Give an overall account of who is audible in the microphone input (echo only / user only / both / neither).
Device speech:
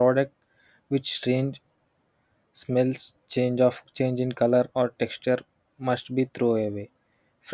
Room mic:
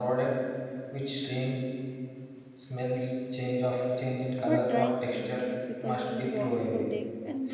both